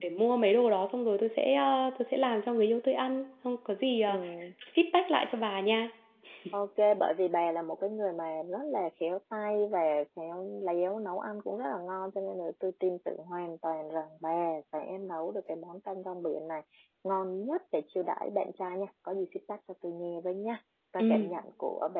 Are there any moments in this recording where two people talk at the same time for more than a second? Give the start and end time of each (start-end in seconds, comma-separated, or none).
none